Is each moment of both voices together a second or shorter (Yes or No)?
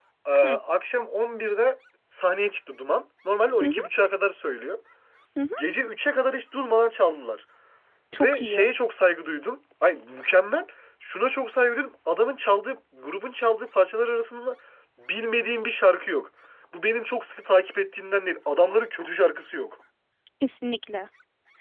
Yes